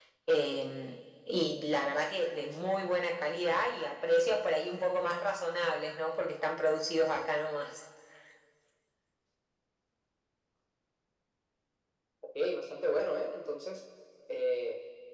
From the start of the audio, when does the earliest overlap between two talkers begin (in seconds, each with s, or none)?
none